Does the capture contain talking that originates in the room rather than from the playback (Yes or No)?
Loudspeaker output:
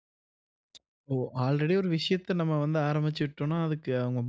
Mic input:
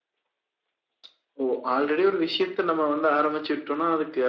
No